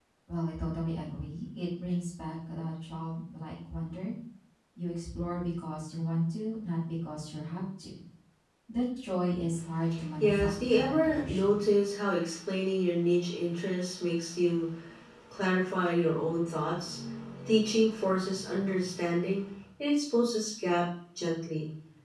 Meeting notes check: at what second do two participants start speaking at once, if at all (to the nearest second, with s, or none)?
10 s